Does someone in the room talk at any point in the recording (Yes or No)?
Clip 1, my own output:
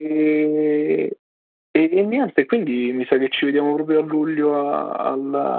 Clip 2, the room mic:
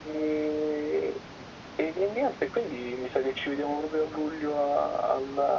No